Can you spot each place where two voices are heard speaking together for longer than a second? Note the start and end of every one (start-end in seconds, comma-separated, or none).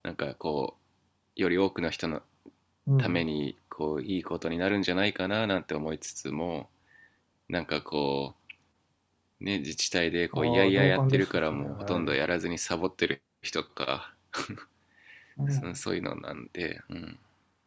10.3-12.2